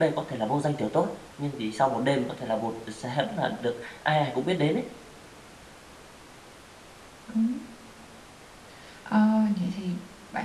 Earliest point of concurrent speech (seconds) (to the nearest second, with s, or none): none